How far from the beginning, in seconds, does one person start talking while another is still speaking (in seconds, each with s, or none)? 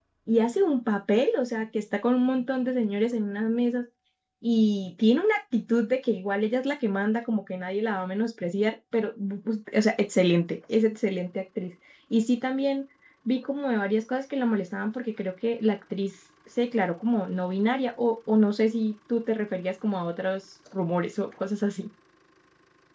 none